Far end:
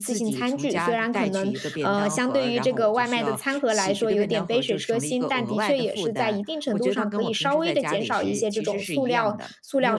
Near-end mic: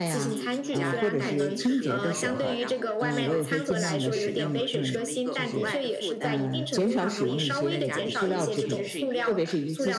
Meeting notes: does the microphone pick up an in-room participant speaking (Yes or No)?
Yes